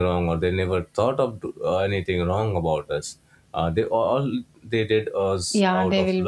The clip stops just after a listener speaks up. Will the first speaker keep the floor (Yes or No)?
No